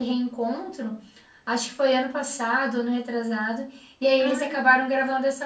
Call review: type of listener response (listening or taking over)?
listening